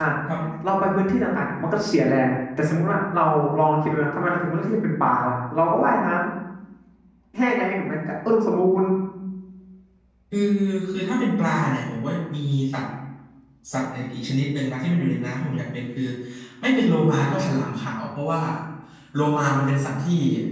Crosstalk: none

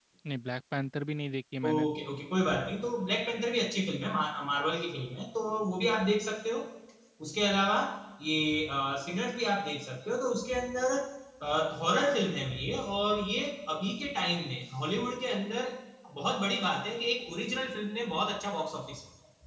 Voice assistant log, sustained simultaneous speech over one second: none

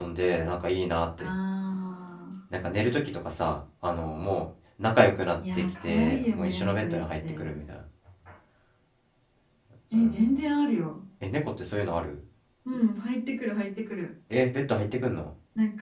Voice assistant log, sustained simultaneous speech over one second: present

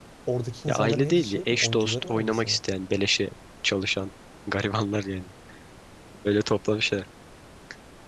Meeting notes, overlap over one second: present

